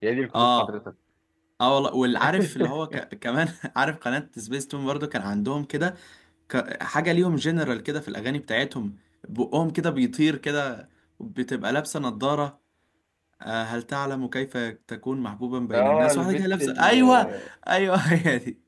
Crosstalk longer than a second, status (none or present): present